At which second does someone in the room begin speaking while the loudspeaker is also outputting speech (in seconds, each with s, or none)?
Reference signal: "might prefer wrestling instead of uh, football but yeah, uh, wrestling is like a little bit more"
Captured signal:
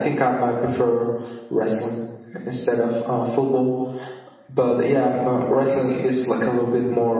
none